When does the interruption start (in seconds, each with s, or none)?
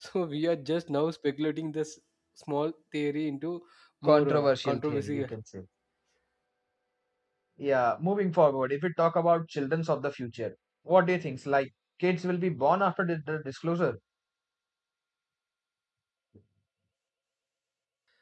4.1 s